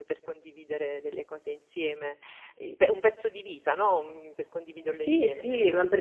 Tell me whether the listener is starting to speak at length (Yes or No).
Yes